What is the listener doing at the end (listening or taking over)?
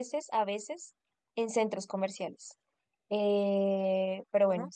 listening